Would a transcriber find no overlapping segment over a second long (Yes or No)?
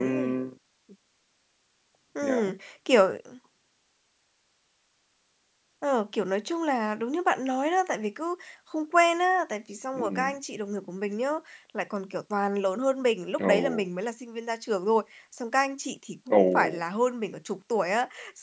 Yes